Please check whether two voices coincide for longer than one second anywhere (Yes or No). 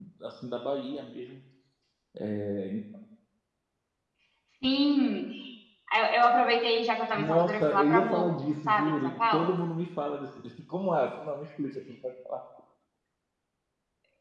Yes